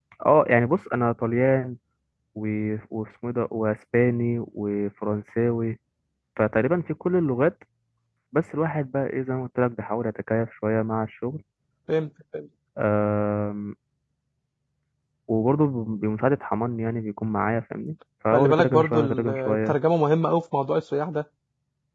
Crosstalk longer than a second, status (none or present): present